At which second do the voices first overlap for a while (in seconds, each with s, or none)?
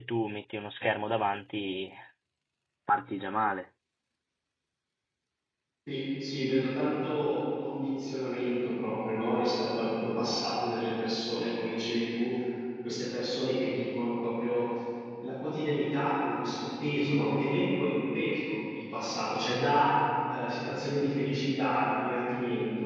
none